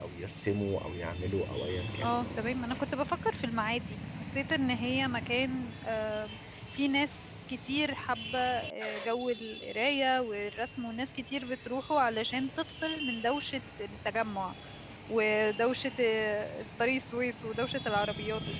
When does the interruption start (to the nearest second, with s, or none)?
none